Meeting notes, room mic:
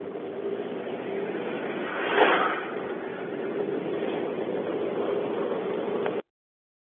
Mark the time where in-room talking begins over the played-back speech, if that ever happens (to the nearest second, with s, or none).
none